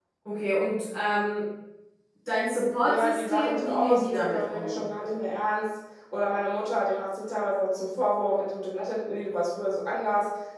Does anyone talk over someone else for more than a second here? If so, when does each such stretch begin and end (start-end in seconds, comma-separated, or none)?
2.9-4.8